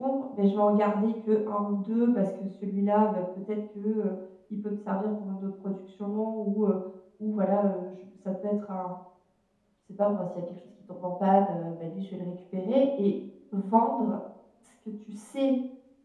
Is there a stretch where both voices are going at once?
No

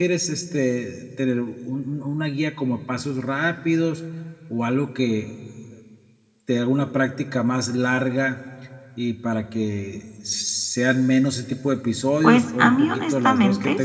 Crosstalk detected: Yes, from 12.2 s

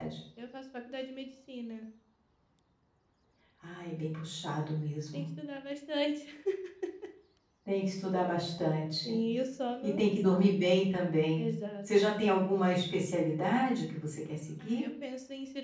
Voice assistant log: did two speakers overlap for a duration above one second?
No

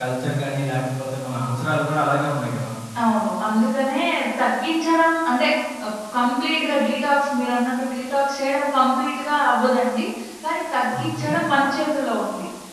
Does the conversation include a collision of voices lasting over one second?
No

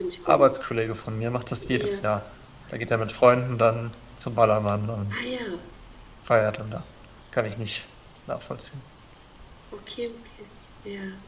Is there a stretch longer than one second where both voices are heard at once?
No

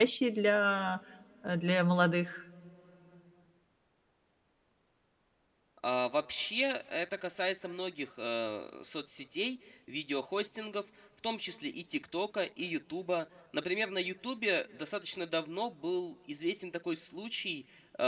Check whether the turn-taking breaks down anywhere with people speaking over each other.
No

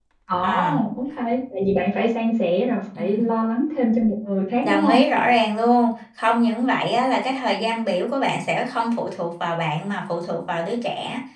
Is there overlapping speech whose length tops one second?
No

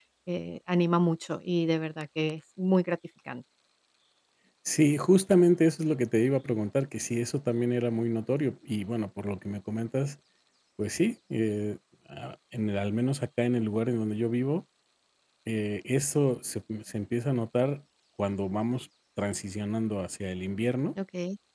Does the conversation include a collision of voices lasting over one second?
No

